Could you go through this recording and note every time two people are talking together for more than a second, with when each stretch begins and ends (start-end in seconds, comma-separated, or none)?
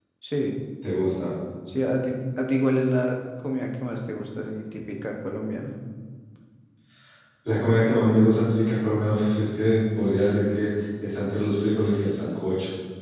none